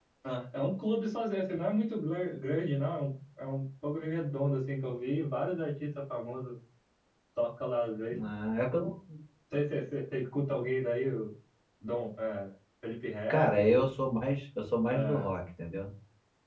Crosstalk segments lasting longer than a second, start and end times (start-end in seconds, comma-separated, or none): none